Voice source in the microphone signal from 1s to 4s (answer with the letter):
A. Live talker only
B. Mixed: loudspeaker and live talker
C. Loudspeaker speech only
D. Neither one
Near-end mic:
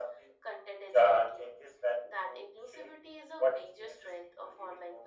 C